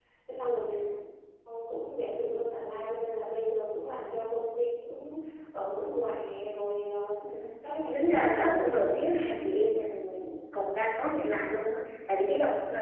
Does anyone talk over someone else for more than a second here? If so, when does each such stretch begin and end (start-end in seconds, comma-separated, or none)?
7.9-9.4